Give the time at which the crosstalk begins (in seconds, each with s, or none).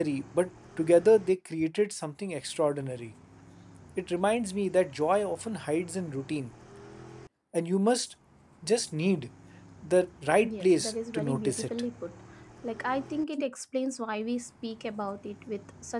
10.4 s